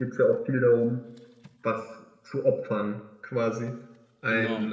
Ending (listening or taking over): listening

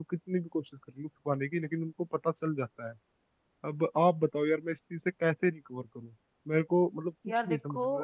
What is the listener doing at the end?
listening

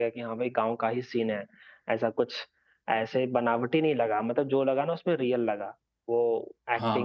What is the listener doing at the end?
taking over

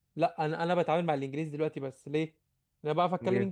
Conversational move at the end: listening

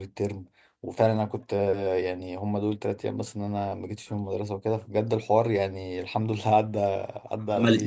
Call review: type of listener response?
taking over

